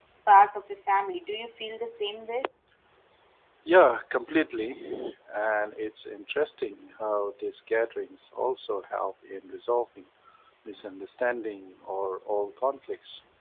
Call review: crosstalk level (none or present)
none